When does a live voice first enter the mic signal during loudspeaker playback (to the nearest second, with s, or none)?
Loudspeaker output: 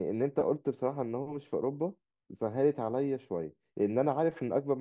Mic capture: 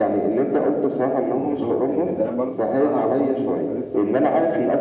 1 s